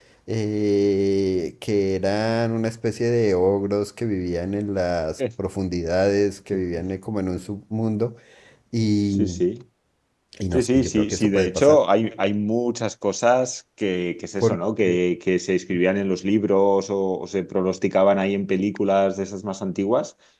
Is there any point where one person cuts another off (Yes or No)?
Yes